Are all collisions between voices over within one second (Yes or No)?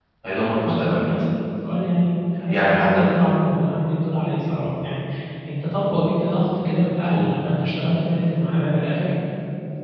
Yes